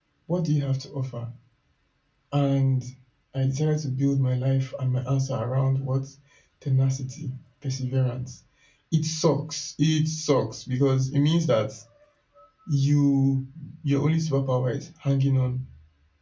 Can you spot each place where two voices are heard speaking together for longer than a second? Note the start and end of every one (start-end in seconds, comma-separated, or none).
none